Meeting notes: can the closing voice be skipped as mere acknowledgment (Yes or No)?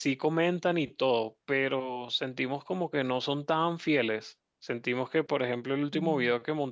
Yes